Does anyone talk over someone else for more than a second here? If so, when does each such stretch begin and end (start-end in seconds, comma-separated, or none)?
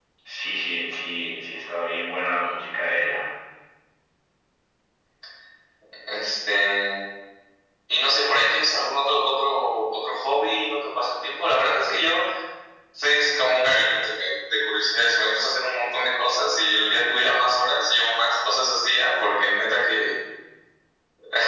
none